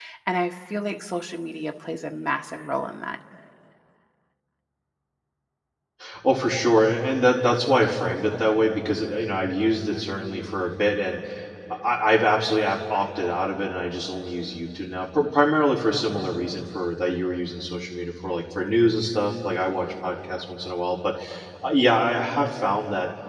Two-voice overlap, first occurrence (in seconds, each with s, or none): none